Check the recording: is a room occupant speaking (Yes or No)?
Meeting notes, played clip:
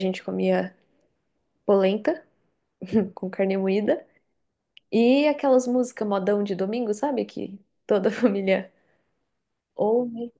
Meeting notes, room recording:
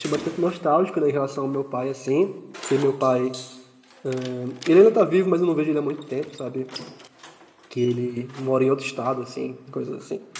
Yes